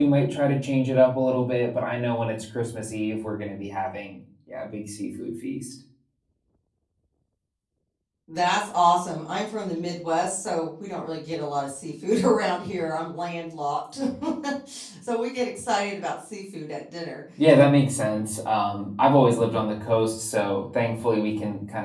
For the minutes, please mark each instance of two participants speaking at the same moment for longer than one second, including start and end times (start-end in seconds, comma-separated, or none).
none